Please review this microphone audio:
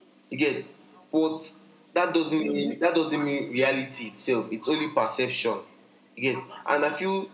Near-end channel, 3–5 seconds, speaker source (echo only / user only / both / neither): echo only